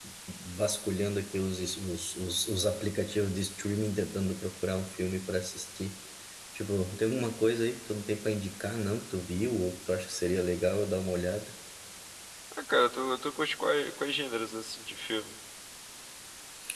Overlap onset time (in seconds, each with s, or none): none